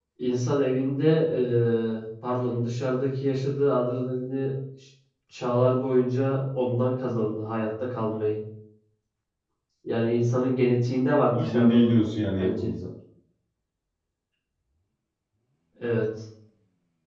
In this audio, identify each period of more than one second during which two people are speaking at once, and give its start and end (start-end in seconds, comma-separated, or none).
11.3-12.7